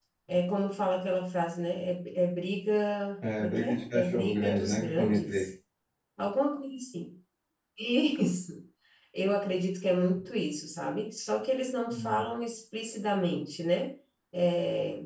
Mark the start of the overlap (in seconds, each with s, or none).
3.4 s